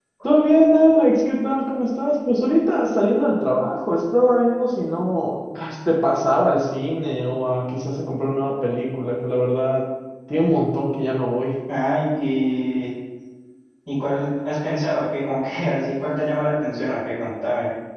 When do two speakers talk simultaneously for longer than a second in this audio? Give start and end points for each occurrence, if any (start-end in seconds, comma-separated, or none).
none